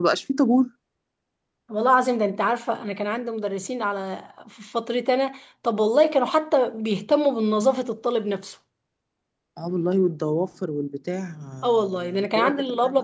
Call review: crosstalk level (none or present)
present